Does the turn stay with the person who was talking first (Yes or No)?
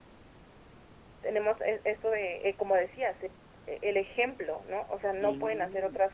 Yes